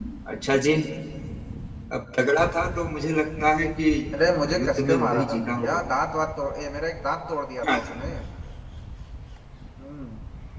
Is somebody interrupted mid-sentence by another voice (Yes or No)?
Yes